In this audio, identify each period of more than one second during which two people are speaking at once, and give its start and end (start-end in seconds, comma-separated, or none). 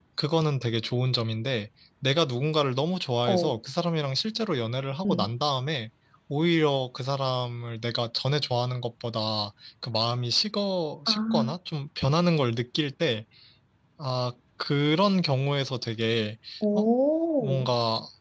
none